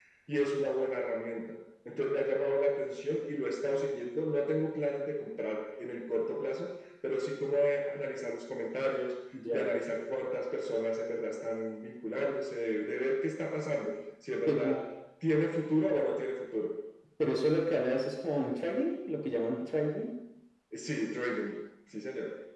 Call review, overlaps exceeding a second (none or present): none